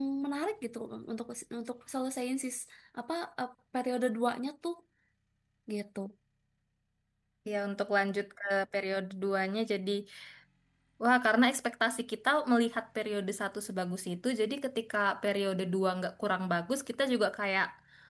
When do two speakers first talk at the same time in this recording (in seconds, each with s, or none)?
none